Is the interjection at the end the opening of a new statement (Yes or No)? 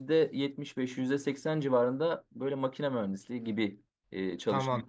Yes